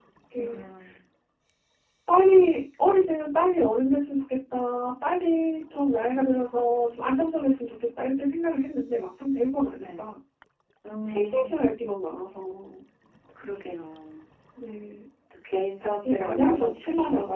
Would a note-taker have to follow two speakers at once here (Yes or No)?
Yes